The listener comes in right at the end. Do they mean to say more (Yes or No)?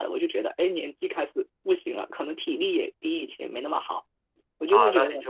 Yes